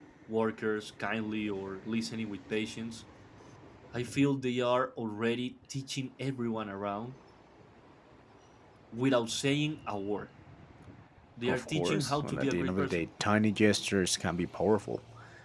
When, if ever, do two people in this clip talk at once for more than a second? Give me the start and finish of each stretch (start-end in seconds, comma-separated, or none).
11.4-13.1